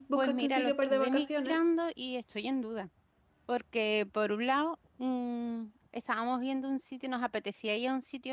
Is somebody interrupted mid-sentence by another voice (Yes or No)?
Yes